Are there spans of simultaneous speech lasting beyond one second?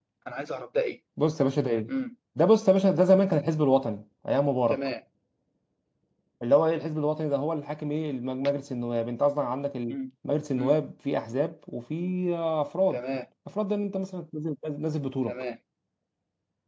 No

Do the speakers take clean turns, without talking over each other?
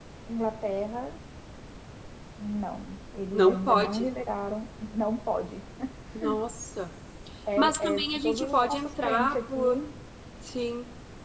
No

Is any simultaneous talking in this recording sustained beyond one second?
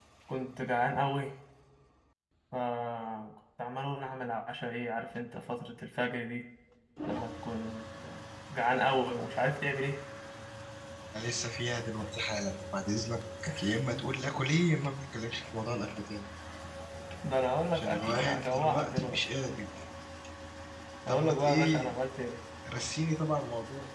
Yes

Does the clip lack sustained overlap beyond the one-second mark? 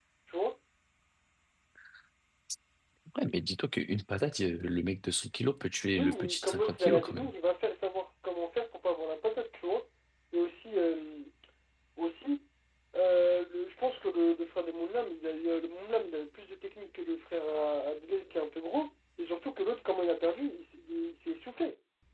No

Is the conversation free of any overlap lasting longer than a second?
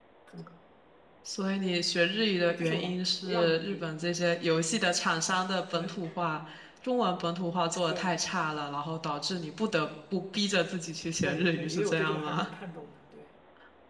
No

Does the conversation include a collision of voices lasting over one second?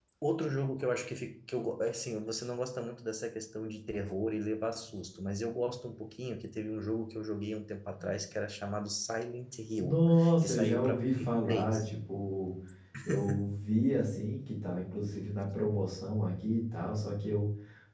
Yes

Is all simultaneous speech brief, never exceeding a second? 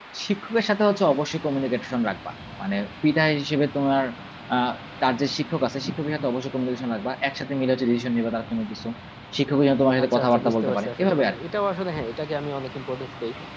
No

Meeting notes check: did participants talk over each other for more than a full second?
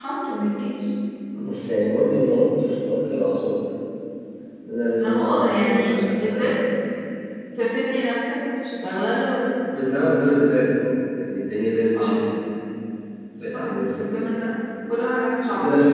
Yes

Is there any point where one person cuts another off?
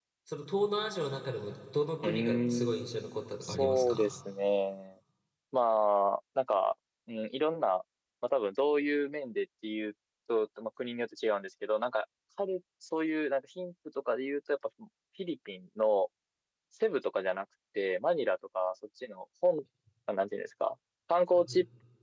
Yes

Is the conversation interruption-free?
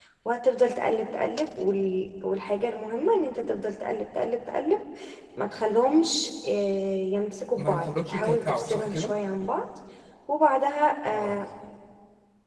No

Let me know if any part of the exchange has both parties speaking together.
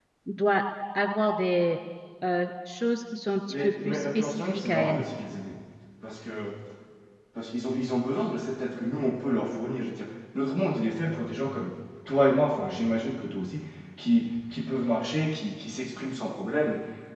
Yes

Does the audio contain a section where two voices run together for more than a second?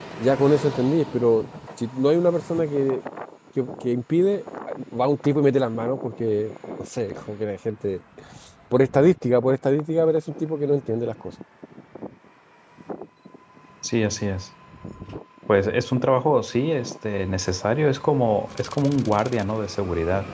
No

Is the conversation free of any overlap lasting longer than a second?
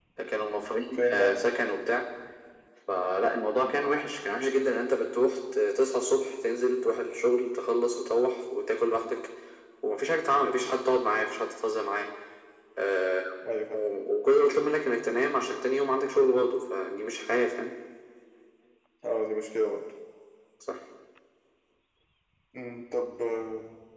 Yes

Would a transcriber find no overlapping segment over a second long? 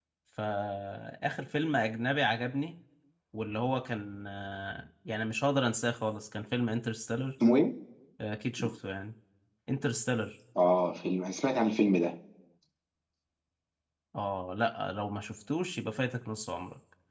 Yes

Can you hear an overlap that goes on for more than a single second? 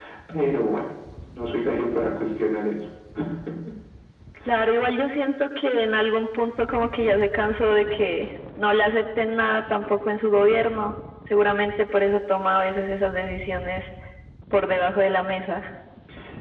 No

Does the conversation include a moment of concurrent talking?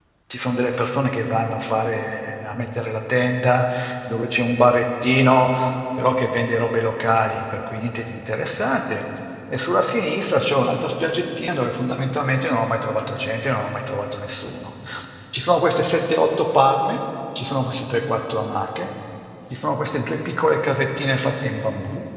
No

